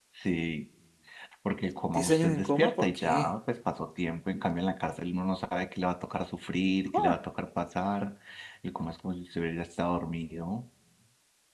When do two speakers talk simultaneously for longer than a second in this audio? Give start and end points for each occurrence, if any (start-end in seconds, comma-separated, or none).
1.9-3.3